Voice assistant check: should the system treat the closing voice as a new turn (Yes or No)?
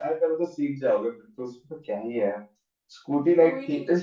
No